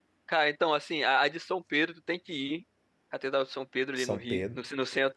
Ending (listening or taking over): listening